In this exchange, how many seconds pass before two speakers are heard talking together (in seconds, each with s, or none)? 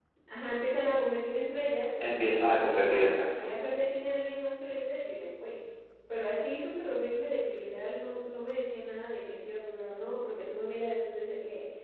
2.0 s